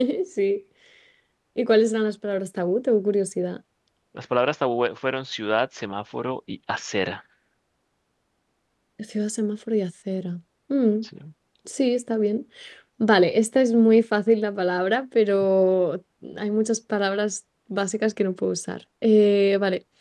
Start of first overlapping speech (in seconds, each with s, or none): none